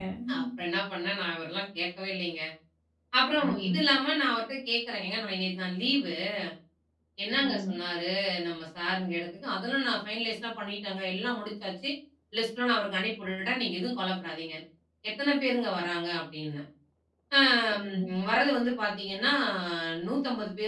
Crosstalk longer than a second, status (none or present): none